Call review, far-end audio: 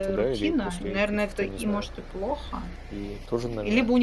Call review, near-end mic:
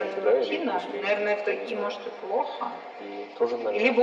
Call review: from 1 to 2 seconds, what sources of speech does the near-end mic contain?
echo only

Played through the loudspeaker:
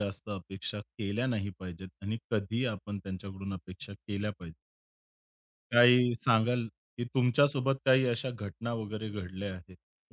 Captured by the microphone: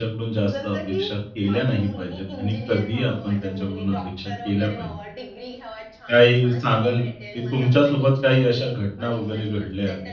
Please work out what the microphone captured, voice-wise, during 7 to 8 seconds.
both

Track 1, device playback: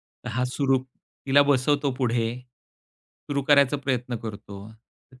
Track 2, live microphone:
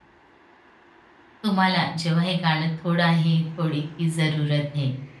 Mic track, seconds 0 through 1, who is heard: neither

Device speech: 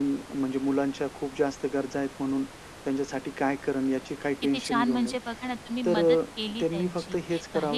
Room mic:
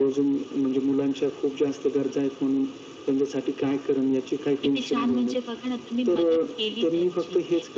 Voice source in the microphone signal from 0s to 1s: echo only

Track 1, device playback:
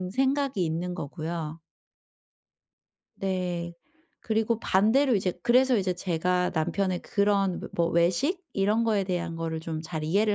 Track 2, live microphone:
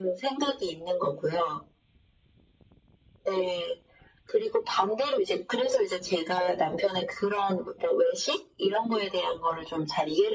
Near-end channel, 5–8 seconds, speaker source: echo only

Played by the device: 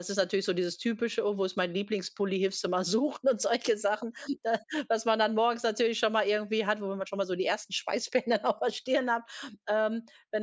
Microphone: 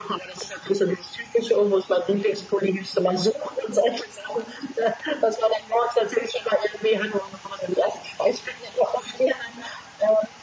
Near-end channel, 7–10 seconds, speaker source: echo only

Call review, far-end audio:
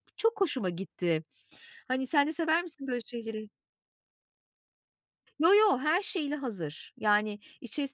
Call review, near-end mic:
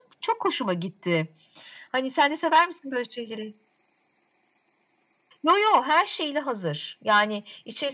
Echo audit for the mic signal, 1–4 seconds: echo only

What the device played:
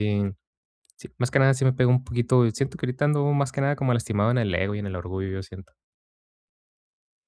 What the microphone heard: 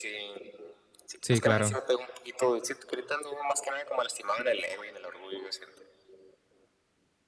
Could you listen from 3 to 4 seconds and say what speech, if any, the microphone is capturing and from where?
echo only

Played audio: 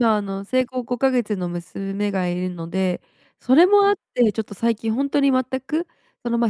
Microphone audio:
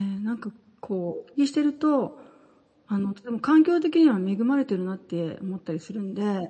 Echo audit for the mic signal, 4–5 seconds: user only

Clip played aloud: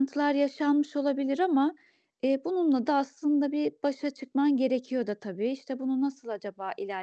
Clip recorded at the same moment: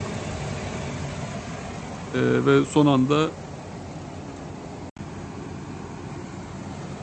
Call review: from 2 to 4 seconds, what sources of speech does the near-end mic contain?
user only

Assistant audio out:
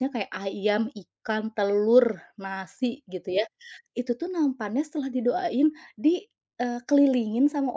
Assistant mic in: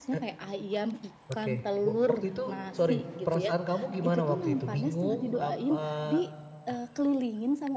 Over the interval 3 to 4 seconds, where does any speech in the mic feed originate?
both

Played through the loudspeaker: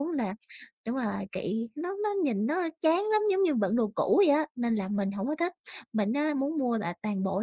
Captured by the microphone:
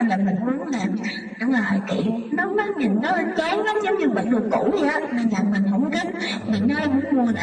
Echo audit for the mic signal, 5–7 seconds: both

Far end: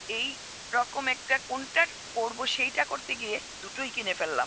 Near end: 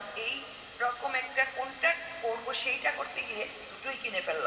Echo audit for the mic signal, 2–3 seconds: echo only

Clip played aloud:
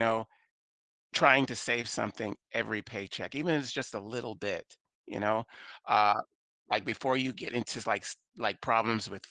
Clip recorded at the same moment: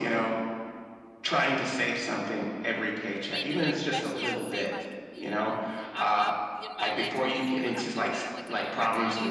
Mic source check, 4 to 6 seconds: both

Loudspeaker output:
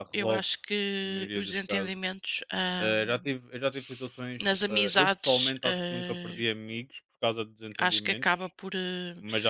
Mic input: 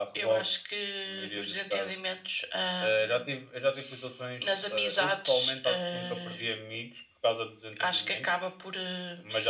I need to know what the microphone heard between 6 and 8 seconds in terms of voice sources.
echo only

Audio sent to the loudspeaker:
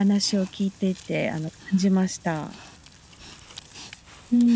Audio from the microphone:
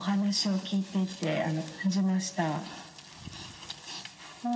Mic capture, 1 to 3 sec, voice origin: echo only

